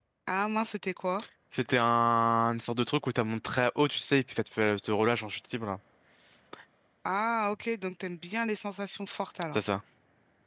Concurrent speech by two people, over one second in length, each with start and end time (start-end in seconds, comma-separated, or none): none